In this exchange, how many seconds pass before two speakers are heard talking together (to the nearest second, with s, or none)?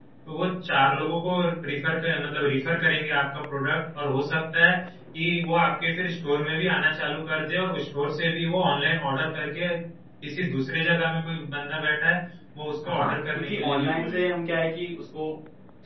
13 s